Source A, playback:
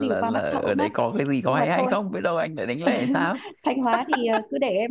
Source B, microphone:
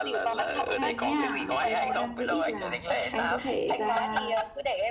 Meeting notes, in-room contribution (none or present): present